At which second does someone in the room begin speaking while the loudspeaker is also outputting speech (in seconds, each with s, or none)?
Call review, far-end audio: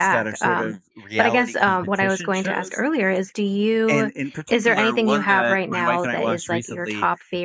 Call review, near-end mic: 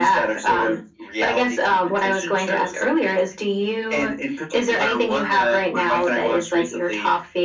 none